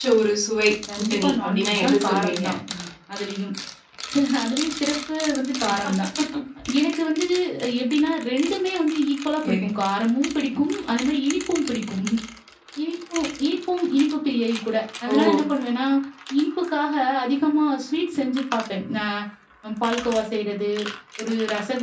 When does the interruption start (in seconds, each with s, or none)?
1.0 s